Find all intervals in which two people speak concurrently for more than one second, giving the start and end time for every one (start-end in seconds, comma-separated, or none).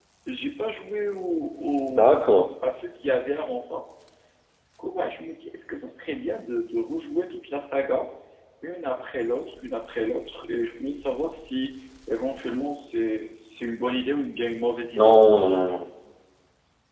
none